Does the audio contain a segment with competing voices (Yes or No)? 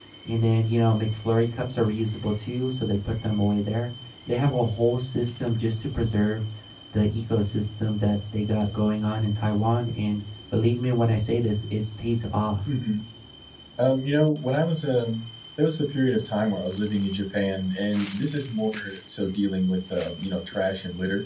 No